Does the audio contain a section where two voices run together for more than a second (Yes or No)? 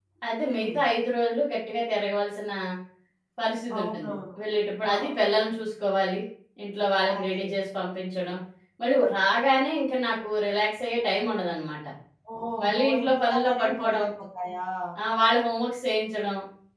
Yes